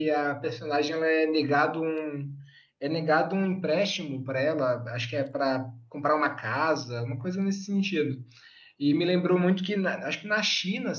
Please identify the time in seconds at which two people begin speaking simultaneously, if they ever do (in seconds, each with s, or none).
none